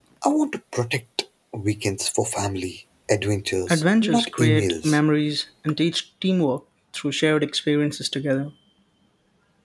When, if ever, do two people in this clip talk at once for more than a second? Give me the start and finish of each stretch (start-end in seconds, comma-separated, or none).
3.7-5.0